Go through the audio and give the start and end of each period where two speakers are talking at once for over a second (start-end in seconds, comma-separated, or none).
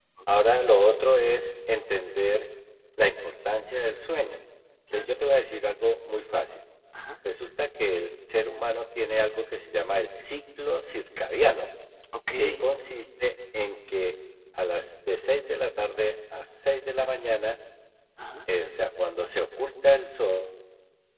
none